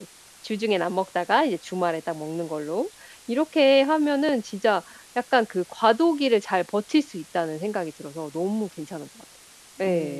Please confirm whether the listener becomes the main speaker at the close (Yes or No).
Yes